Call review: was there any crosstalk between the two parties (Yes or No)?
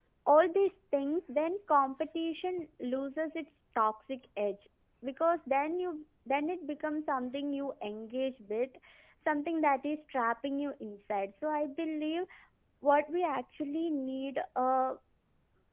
No